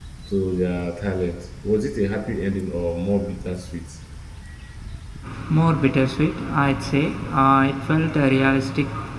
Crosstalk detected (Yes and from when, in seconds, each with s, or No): No